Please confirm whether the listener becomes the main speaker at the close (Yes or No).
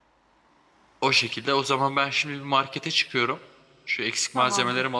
No